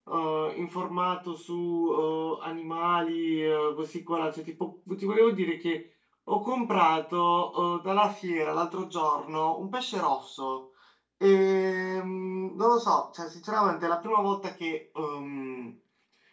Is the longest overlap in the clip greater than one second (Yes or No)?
No